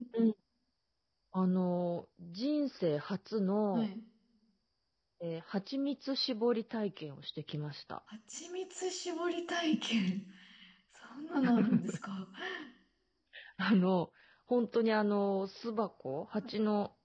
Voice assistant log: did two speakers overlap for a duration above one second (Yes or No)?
No